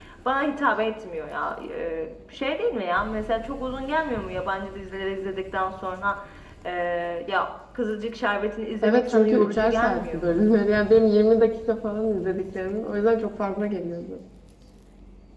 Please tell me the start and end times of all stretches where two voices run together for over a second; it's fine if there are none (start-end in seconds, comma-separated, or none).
8.8-10.4